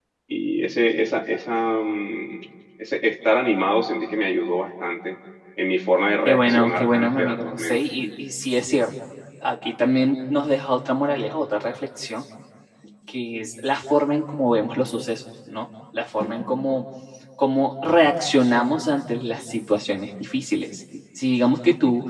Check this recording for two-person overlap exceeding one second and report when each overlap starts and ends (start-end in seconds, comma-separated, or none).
6.2-7.8